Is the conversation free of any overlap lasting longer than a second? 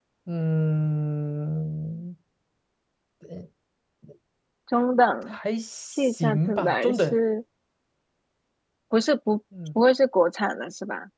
No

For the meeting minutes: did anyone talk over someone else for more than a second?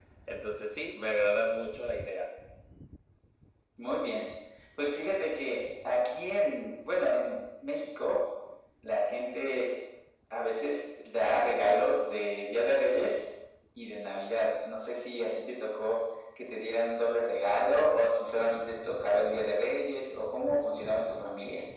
No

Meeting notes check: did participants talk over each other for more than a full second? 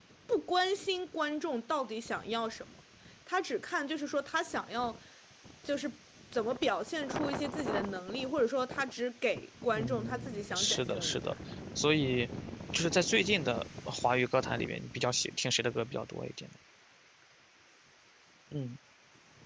Yes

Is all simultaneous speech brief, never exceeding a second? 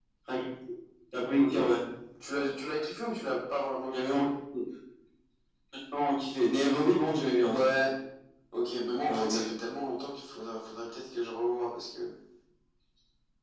Yes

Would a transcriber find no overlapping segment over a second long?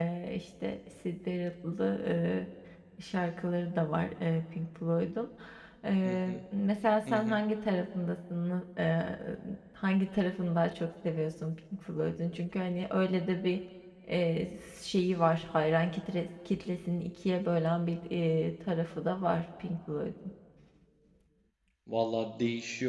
Yes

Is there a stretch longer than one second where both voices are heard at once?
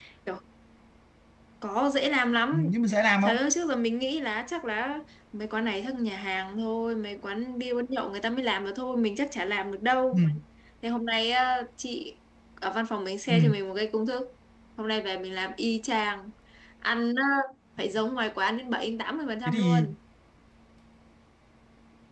No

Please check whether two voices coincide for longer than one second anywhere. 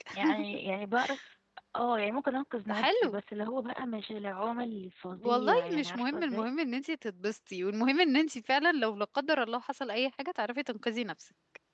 Yes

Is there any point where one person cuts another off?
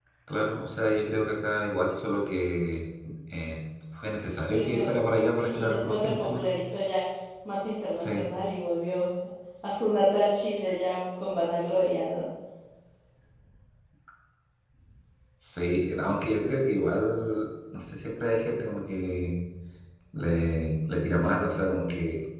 Yes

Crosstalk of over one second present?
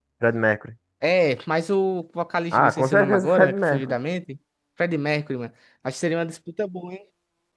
Yes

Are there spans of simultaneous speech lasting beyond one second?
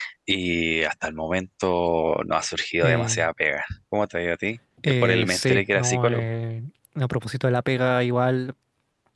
Yes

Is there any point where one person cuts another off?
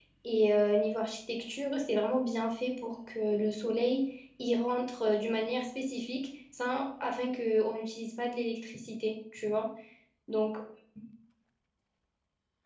No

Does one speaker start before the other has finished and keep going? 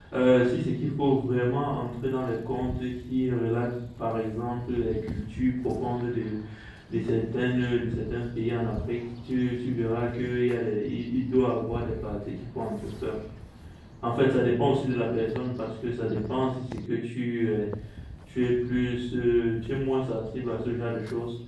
No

